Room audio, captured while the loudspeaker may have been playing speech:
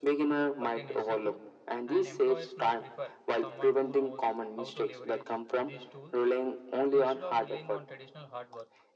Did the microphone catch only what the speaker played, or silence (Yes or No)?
No